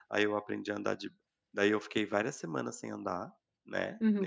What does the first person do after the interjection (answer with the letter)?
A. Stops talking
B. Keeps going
A